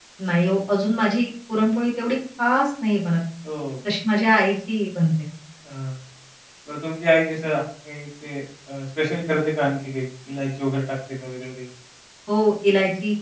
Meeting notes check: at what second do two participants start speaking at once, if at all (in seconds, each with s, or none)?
none